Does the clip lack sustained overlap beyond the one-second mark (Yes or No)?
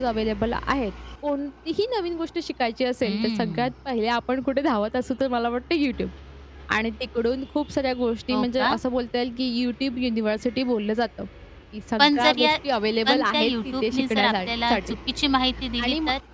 No